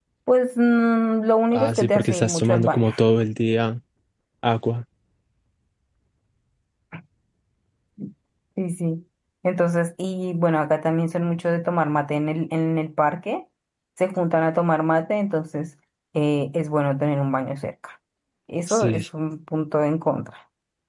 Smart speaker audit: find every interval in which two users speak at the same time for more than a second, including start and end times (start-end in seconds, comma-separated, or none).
1.5-2.9